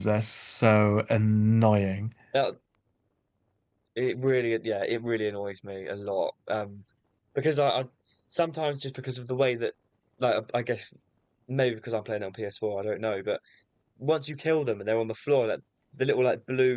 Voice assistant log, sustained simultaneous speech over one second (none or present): none